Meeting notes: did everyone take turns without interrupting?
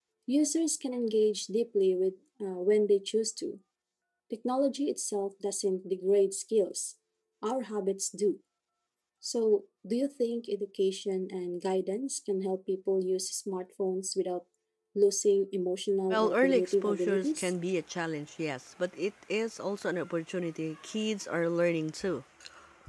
No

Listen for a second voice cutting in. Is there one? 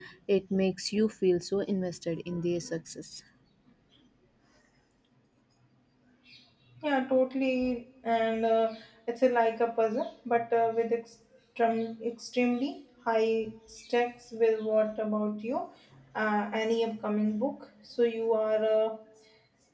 No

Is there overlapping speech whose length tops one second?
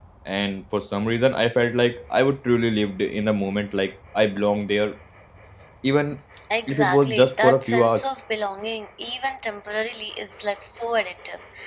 Yes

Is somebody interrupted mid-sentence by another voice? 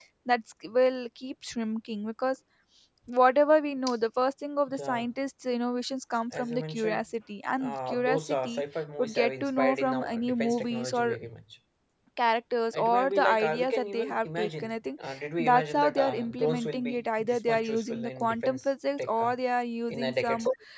Yes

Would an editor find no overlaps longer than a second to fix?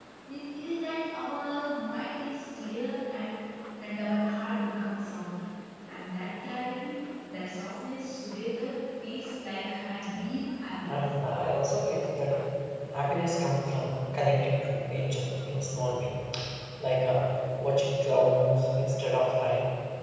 Yes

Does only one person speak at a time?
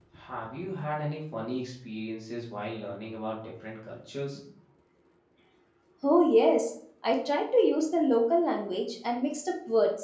Yes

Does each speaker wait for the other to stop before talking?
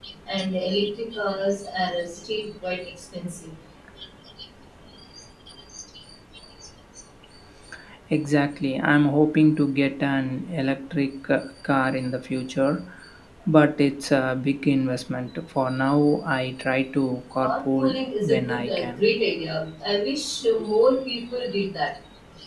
No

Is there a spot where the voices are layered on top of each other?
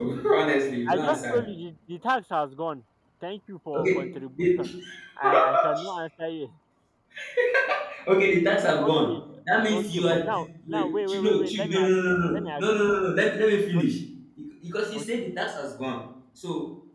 Yes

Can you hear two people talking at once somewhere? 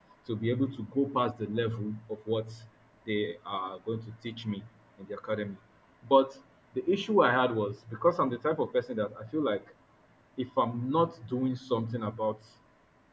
No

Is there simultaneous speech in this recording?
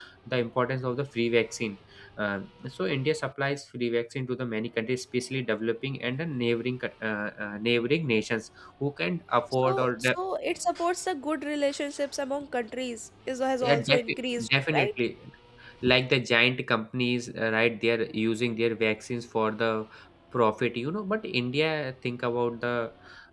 Yes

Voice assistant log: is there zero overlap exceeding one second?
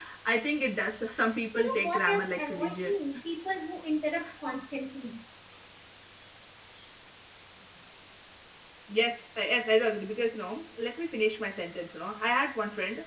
No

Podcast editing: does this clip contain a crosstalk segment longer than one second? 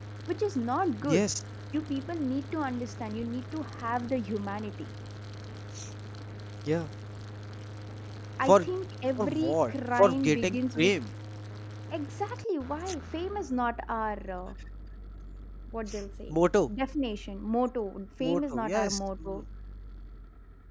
Yes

